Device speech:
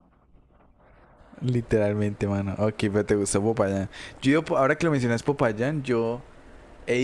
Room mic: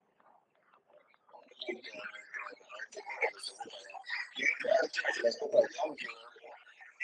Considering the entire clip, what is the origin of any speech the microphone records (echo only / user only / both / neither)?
echo only